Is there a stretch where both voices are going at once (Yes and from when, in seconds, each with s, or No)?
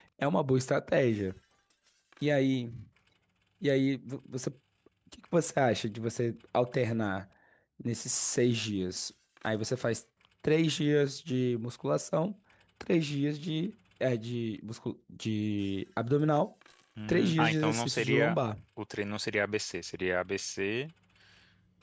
Yes, from 17.1 s